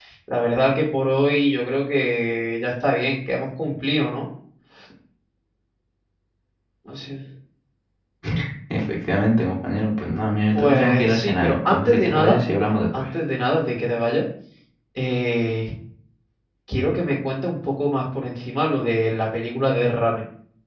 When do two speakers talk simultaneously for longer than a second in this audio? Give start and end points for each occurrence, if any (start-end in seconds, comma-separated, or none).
10.5-12.4